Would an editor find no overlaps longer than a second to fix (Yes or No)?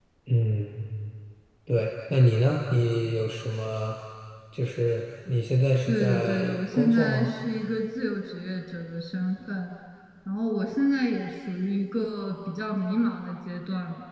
No